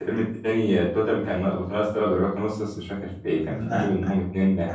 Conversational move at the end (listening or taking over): listening